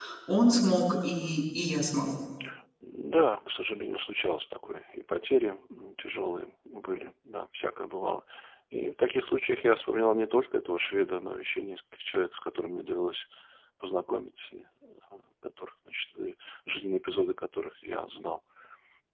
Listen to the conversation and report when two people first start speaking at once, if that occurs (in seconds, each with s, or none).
none